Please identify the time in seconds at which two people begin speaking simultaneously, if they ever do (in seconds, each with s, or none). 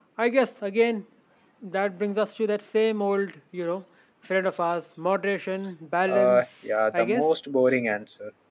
6.1 s